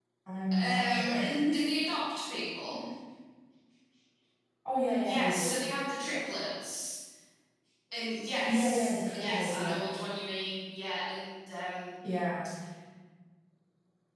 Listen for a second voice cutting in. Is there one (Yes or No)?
Yes